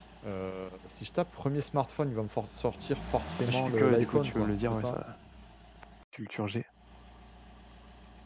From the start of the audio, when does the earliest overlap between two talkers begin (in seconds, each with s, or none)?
3.5 s